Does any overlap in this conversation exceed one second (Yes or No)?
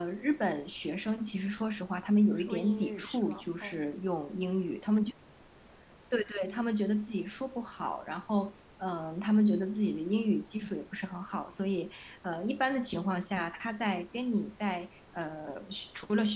Yes